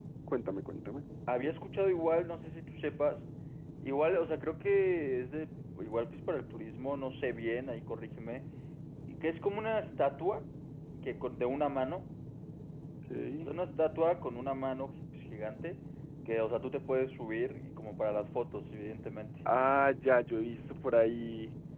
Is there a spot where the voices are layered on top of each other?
No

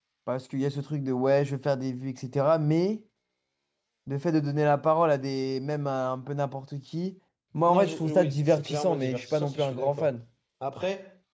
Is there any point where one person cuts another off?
Yes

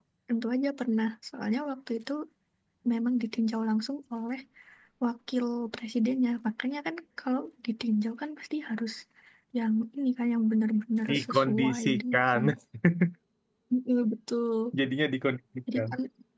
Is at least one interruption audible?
Yes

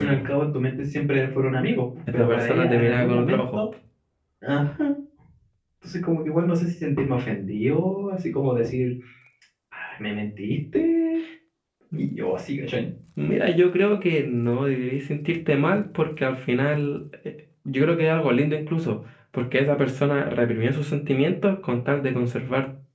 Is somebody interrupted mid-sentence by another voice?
Yes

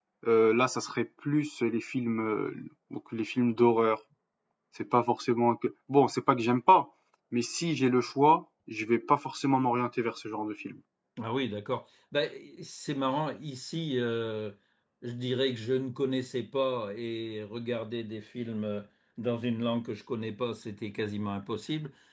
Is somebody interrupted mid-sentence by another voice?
No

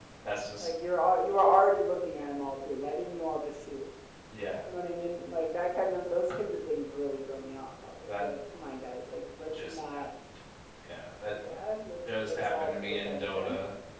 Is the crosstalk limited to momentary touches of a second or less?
No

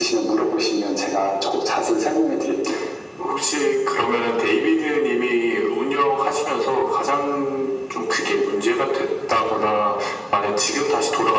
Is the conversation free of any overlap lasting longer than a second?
Yes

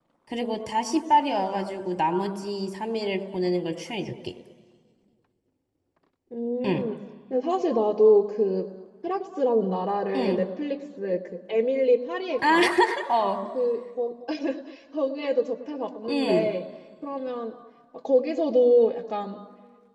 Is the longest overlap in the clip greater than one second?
No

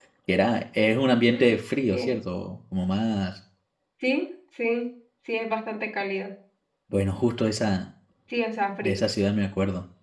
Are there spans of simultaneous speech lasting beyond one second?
No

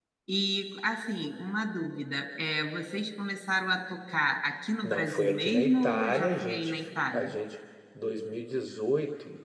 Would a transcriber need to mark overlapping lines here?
Yes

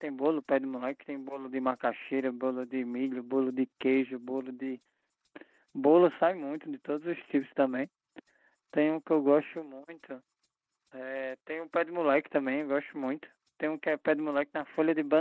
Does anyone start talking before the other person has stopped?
No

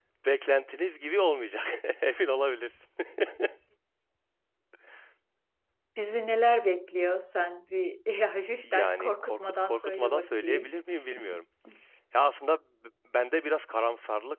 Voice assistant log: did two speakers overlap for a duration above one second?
Yes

